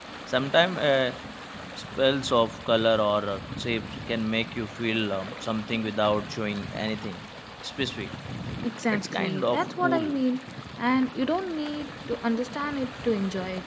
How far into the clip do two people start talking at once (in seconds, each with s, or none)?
8.9 s